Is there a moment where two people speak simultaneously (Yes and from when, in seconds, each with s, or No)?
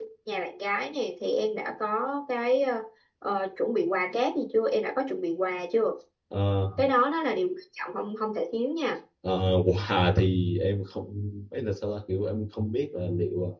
No